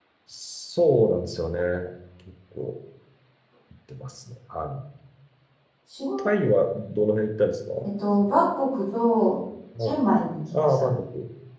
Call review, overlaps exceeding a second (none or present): none